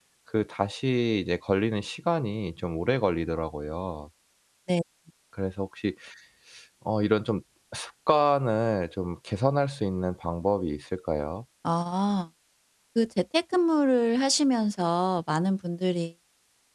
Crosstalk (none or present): none